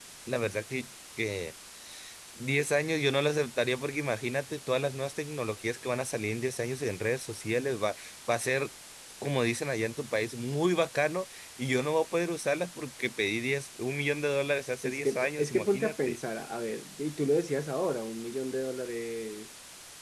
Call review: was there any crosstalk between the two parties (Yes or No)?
Yes